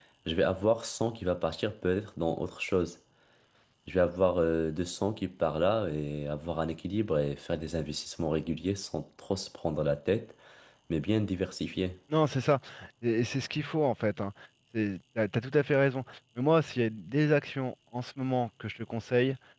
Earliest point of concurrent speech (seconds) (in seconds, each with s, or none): none